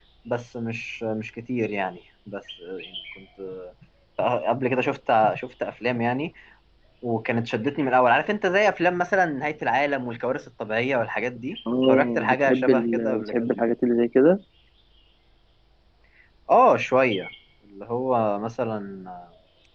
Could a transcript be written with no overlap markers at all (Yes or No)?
No